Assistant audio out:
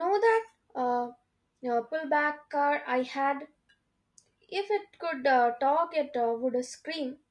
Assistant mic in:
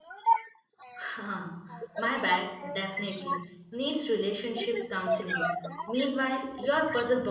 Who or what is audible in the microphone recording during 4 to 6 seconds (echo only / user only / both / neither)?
both